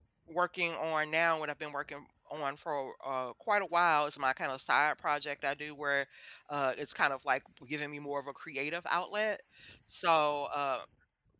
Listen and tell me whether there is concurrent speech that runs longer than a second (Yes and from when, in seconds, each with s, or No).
No